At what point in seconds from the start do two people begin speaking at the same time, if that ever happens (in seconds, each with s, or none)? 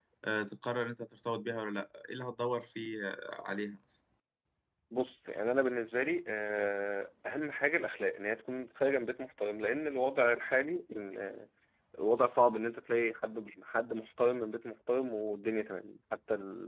none